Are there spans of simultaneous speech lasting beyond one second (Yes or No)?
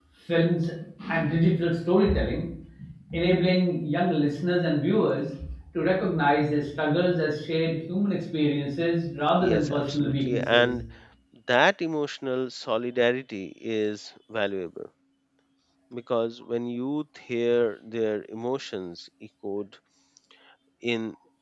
Yes